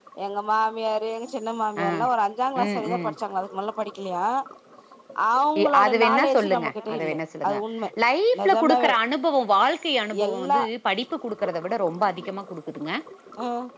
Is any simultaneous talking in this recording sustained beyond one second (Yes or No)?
Yes